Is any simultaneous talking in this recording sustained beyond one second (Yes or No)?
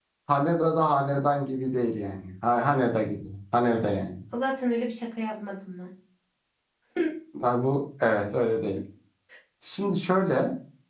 No